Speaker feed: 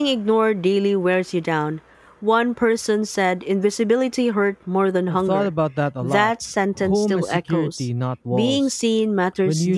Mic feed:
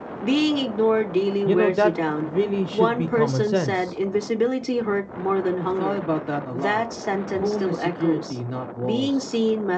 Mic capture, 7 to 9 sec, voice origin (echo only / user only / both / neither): echo only